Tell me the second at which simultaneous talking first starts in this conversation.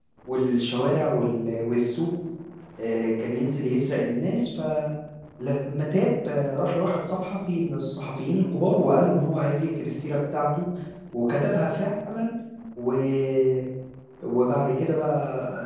none

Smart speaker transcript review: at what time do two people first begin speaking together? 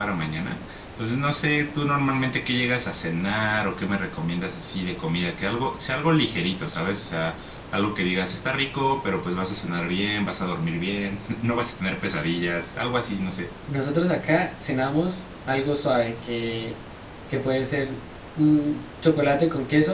none

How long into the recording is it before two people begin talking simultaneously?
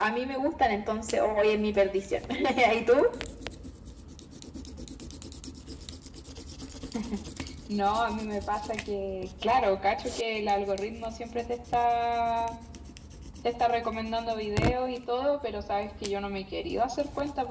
none

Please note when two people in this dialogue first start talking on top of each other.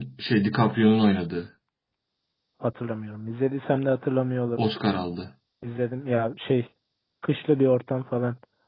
none

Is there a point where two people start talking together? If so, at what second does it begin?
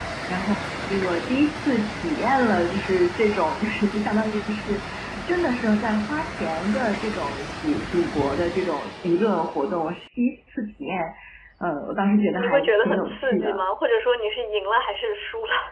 12.3 s

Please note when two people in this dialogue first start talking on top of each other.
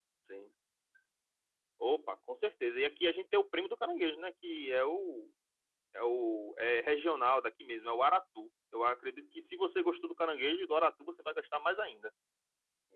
none

